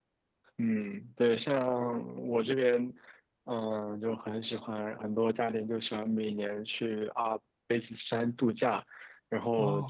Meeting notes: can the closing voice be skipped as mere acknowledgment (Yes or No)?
Yes